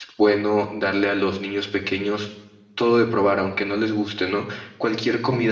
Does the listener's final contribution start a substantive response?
No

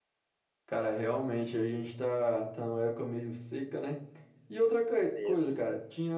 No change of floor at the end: Yes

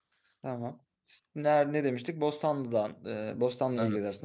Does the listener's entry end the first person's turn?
No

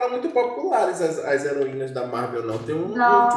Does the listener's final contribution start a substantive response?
Yes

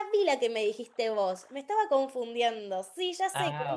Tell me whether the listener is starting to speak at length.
No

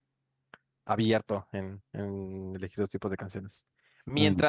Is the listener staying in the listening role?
Yes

